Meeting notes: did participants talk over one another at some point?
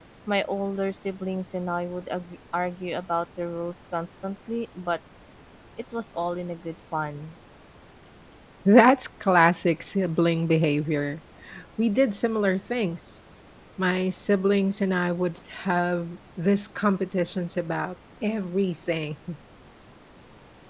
No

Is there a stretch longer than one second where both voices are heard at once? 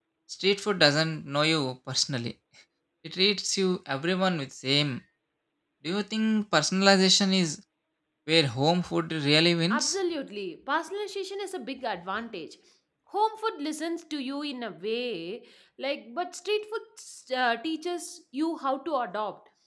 No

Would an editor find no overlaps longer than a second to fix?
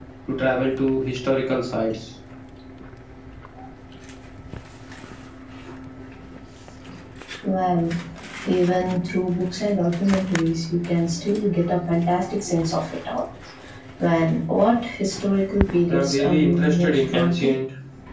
No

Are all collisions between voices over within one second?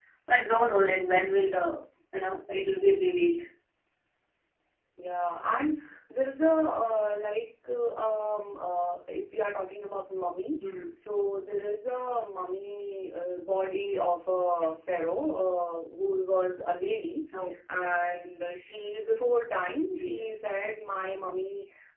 Yes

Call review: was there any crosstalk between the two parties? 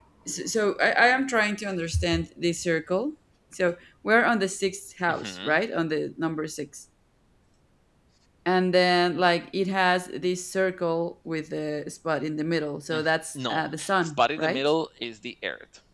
Yes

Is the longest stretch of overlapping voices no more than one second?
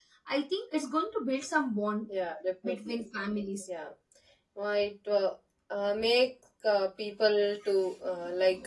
Yes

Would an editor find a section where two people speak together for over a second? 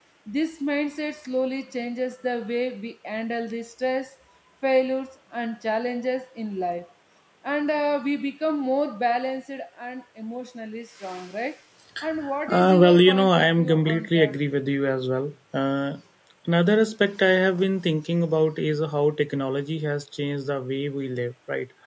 Yes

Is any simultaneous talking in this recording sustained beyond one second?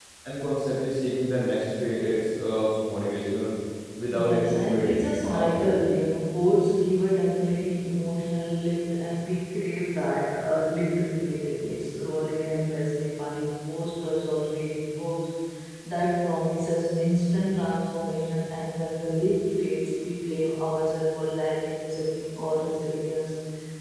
Yes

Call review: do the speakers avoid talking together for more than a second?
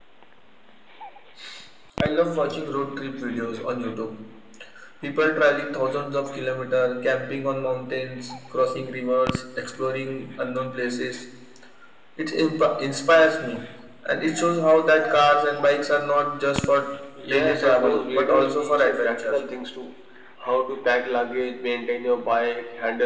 No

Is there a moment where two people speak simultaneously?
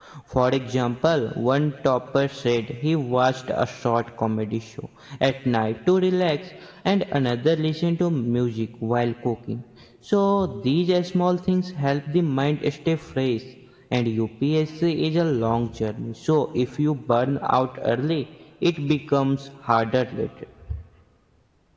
No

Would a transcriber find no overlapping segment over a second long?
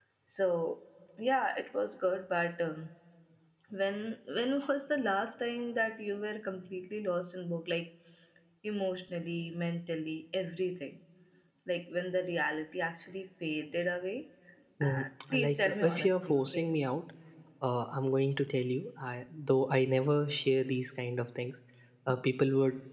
No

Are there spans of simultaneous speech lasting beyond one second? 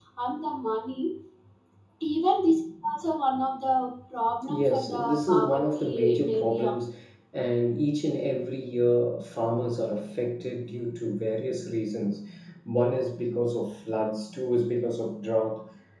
Yes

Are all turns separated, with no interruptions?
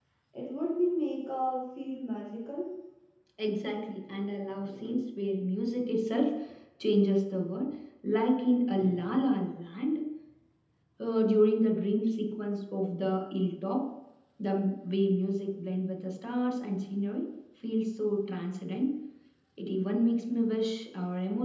Yes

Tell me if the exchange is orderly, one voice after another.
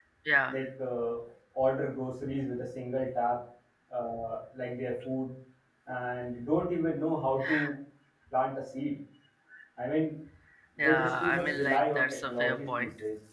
No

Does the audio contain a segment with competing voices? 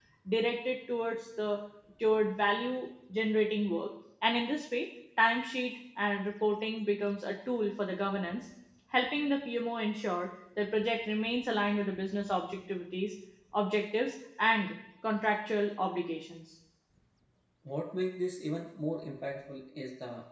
No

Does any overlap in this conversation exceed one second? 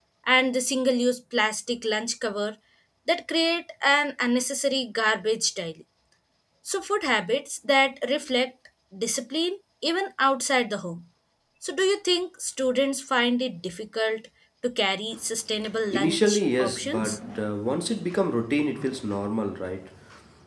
Yes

